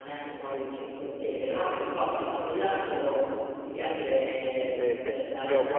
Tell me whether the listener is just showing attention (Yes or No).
No